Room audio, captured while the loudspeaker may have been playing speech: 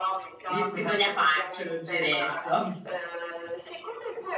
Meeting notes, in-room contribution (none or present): present